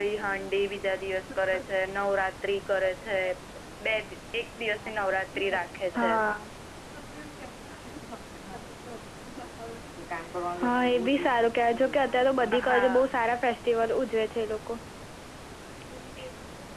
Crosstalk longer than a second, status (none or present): none